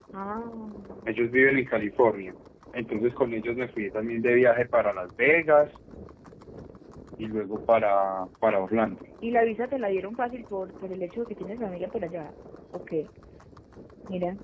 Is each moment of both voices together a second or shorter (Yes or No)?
Yes